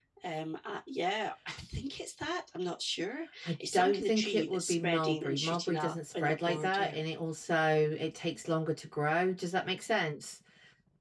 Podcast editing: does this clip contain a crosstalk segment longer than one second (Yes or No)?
Yes